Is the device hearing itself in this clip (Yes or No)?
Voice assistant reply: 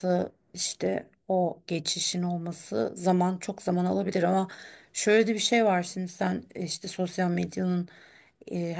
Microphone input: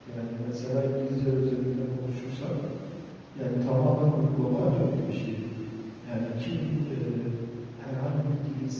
No